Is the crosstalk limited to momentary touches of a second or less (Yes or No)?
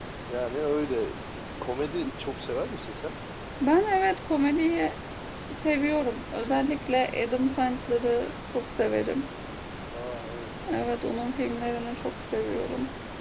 Yes